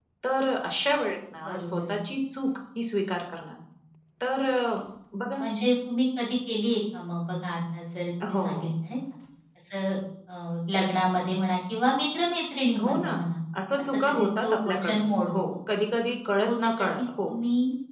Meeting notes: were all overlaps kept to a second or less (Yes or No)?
No